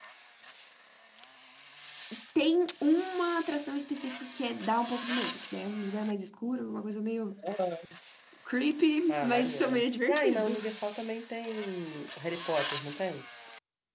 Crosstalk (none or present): present